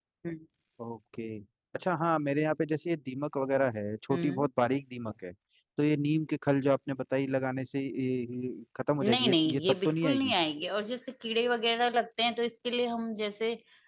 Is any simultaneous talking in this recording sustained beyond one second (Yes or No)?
Yes